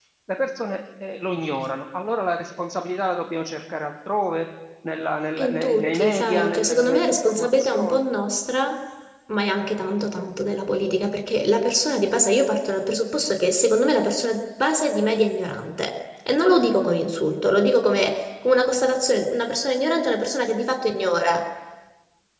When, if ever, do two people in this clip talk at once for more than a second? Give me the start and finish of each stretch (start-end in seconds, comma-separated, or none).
5.4-8.0